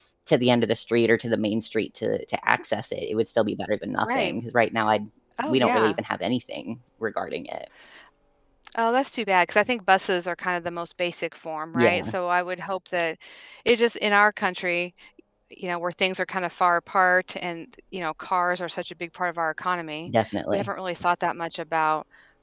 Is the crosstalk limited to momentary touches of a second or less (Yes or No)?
Yes